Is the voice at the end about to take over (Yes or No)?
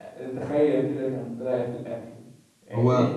No